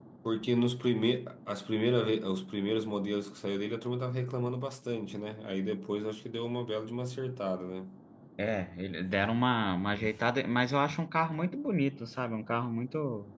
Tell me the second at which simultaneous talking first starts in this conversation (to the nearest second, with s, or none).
none